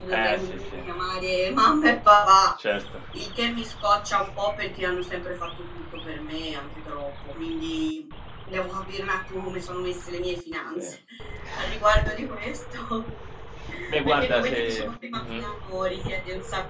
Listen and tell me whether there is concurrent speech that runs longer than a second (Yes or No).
Yes